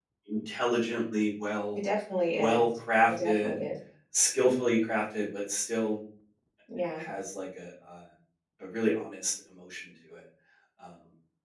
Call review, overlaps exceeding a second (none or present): none